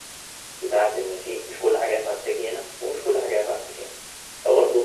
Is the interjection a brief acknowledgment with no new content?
Yes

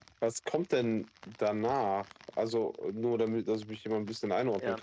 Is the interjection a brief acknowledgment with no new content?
No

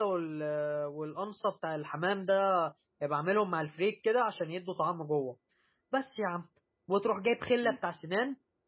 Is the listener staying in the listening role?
Yes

